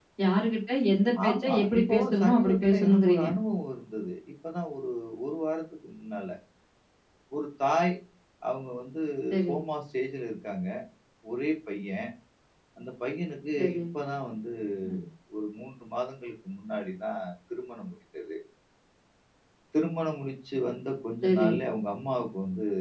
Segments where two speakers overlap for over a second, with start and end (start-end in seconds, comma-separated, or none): 1.3-3.2